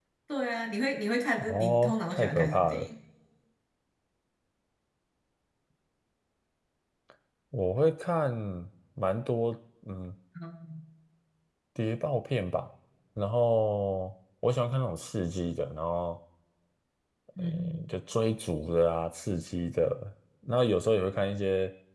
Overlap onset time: 1.4 s

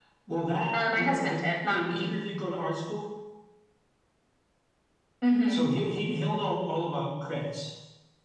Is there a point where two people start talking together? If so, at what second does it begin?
0.7 s

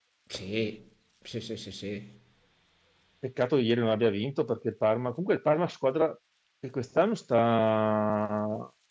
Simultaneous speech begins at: none

